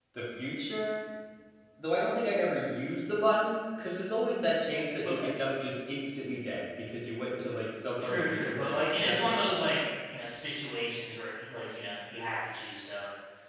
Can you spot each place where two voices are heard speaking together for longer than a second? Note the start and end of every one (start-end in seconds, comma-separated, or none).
8.0-9.5